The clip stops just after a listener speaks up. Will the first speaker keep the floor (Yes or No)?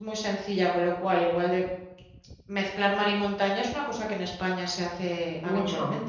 No